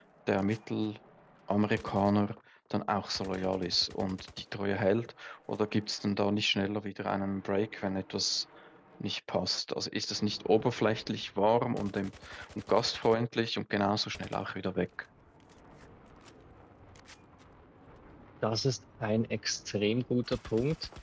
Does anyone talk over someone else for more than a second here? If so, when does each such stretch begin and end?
none

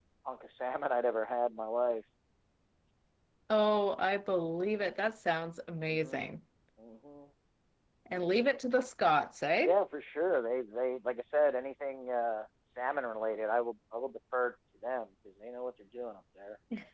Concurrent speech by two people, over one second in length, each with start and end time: none

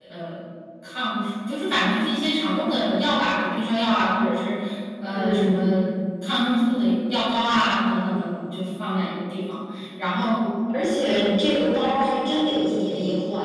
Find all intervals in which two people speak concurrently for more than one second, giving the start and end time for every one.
none

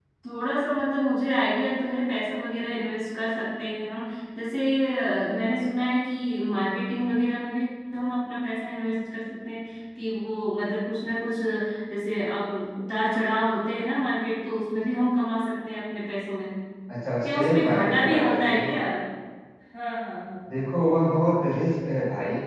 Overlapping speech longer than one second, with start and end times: 17.2-18.7

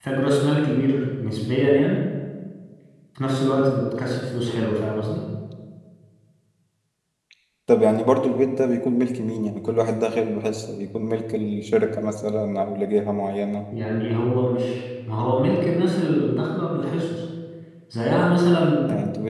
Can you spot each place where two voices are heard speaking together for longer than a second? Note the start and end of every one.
none

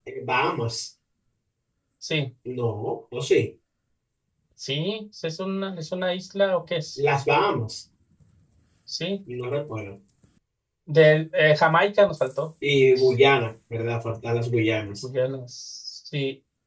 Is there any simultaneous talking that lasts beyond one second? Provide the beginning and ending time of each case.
none

